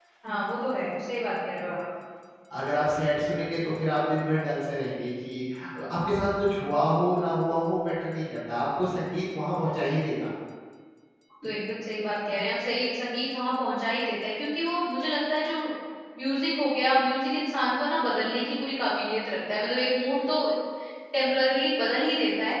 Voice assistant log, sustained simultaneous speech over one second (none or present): none